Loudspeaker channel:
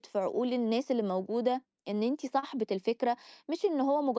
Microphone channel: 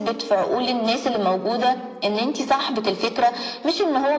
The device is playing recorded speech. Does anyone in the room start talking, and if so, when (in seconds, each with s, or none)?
none